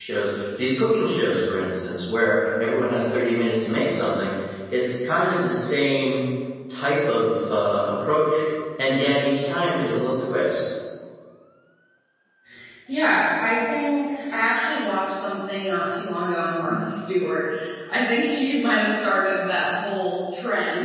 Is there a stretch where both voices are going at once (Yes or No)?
No